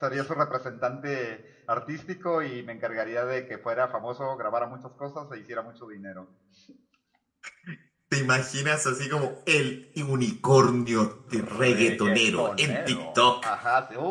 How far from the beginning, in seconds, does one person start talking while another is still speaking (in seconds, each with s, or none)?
11.3 s